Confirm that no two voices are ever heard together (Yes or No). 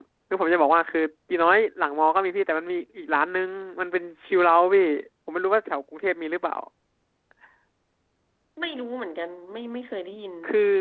Yes